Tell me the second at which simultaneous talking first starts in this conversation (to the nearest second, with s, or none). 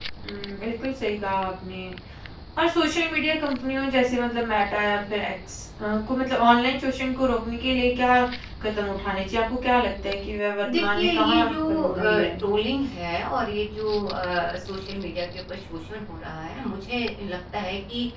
11 s